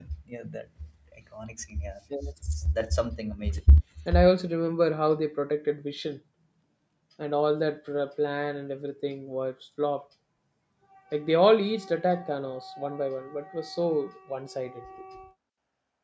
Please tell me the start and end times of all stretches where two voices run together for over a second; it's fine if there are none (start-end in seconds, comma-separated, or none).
none